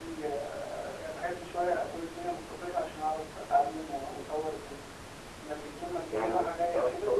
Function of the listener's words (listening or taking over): taking over